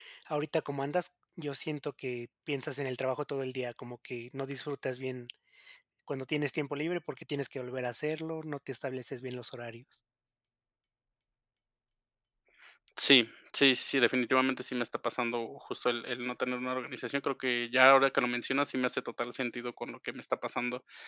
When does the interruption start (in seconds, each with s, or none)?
none